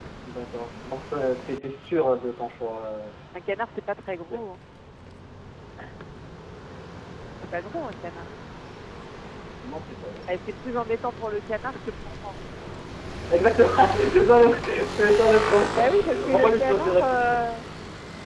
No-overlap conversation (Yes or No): No